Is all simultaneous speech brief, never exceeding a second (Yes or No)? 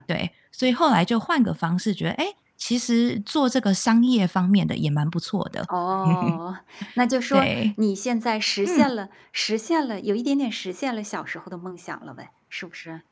Yes